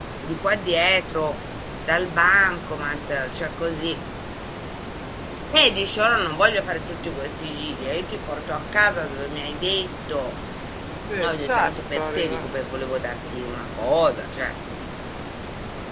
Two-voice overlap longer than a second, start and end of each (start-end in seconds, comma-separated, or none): 11.2-12.5